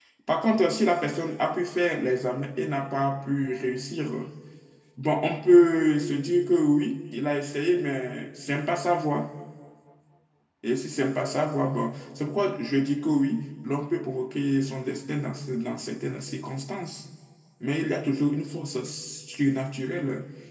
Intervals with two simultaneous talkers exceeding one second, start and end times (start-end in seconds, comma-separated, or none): none